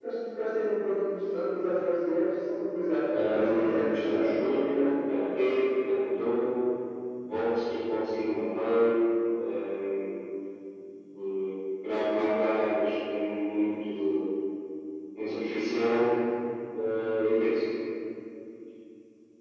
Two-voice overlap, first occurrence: 3.1 s

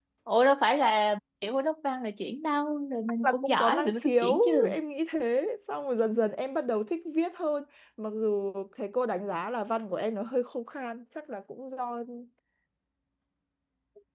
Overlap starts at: 3.2 s

